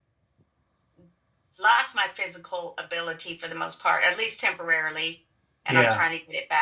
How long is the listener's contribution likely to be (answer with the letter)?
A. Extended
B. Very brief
B